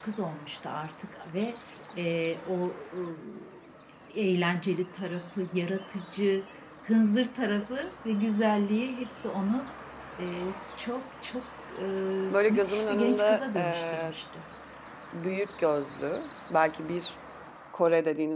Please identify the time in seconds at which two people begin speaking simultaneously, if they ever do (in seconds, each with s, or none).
12.5 s